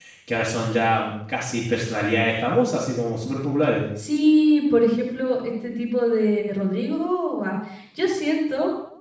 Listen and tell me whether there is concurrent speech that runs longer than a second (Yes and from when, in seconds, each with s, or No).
No